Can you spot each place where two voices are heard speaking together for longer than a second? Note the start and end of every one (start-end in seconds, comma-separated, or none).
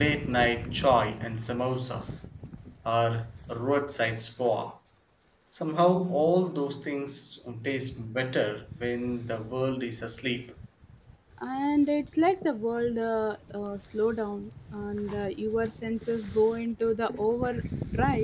none